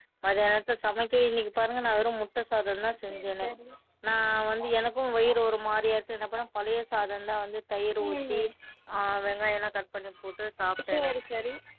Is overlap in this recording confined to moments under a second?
Yes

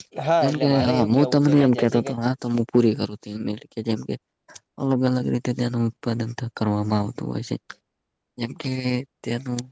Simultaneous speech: Yes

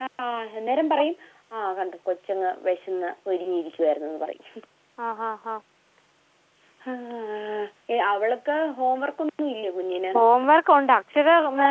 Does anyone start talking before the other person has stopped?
No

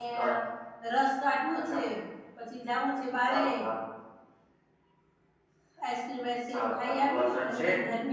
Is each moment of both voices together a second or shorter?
No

